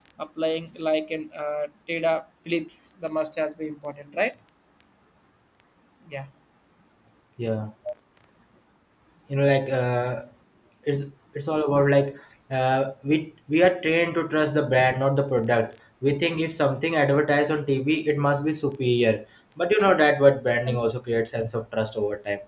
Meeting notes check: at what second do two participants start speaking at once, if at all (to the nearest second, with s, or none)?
none